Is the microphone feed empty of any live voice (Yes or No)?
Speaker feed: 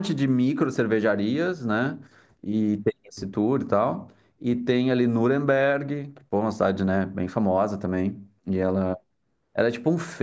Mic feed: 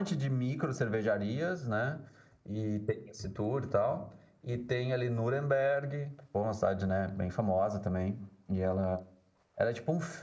Yes